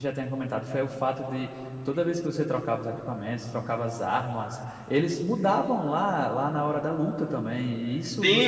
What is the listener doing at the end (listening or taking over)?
taking over